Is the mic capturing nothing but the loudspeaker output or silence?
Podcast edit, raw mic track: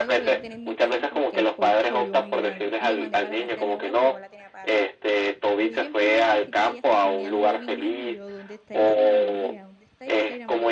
No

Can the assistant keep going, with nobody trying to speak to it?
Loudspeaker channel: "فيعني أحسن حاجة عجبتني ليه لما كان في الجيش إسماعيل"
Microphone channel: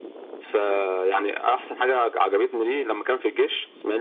Yes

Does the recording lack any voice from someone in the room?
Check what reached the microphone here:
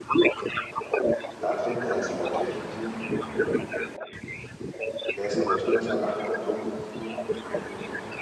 No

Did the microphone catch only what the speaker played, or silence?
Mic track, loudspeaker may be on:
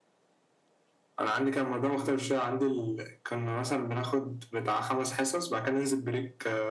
Yes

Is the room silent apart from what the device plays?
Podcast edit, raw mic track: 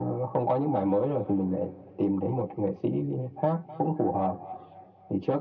Yes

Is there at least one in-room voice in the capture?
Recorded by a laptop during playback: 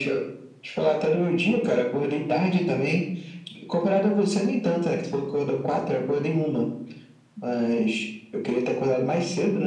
No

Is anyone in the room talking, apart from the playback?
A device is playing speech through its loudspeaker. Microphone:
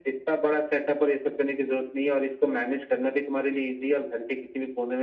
No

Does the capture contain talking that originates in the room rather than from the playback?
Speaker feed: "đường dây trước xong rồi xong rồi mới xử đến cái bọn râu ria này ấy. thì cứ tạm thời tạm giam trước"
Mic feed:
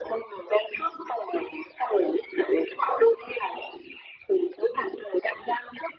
No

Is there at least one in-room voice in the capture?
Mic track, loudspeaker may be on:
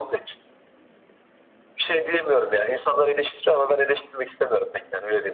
No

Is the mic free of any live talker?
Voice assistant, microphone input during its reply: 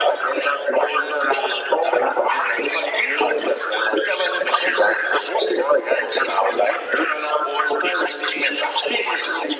Yes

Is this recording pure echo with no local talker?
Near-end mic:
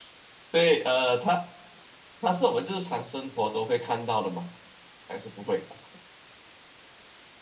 No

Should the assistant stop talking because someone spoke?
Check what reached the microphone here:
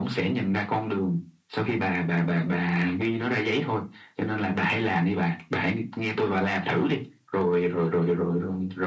No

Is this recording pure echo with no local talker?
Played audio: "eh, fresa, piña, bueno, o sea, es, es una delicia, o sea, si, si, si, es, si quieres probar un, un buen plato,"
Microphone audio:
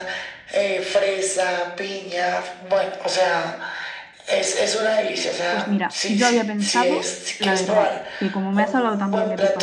No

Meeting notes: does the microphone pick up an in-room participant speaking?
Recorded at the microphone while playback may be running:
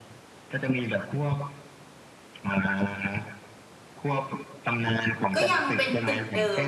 Yes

